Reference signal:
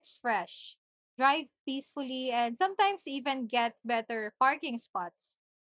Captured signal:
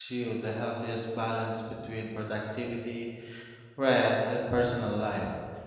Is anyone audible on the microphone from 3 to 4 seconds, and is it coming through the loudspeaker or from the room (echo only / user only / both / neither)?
user only